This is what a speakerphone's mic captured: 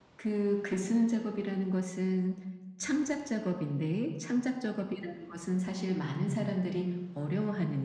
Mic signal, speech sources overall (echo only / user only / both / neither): echo only